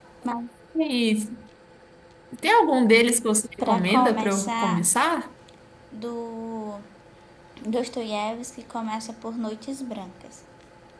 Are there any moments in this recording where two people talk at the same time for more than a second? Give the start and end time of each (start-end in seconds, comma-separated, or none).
3.6-4.9